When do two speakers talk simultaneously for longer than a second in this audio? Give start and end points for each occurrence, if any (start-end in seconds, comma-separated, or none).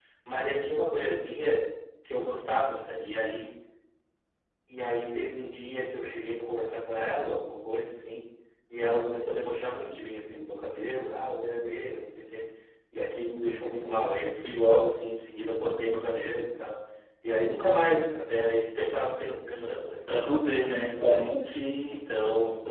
20.1-21.3